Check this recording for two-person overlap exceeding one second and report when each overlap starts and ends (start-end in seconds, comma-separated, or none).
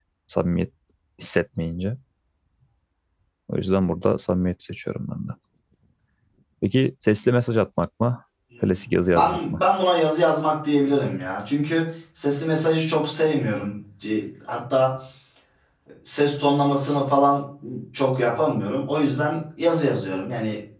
none